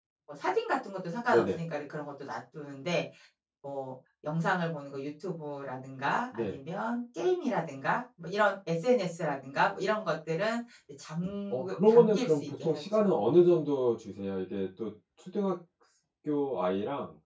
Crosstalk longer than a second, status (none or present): present